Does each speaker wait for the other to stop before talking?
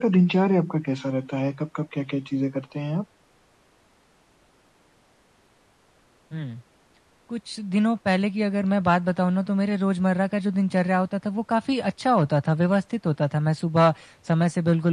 Yes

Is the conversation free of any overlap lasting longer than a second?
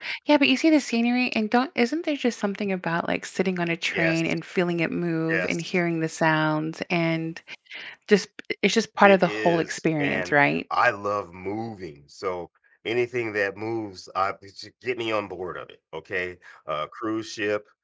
No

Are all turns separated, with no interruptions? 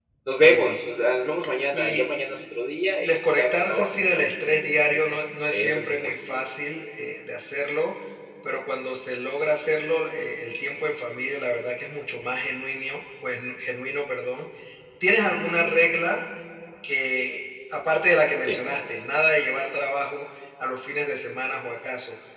No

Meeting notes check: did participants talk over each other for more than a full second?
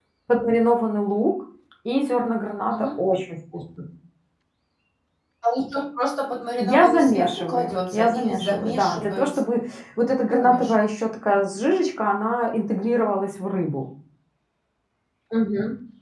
Yes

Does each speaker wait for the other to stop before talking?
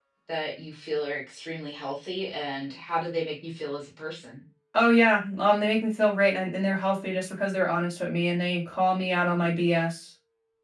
Yes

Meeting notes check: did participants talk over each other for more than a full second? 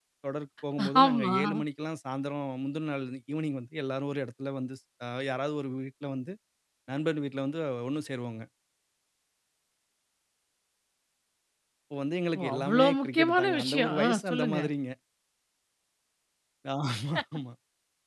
Yes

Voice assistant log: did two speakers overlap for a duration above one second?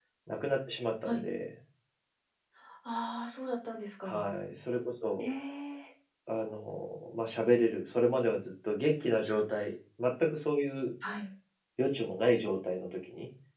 No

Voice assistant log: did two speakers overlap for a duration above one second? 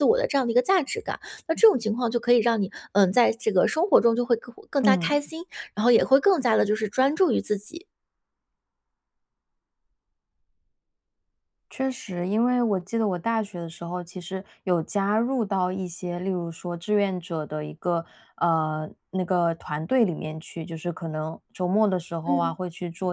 No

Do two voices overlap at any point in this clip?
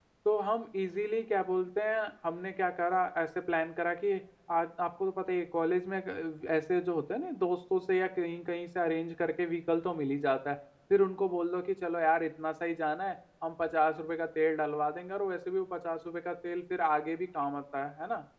No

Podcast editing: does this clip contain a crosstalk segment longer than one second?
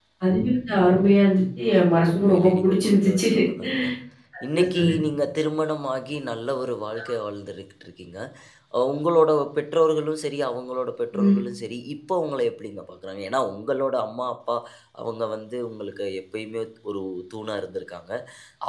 Yes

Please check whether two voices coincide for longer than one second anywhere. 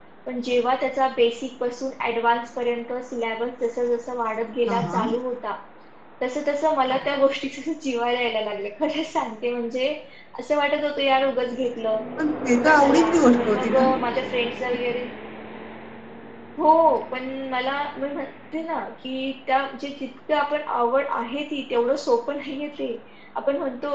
Yes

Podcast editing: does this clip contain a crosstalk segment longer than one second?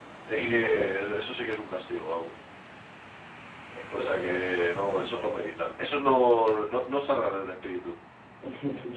Yes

